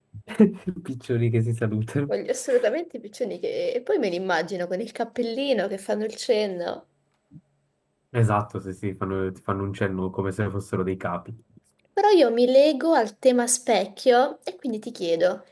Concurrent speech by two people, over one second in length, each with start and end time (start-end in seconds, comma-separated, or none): none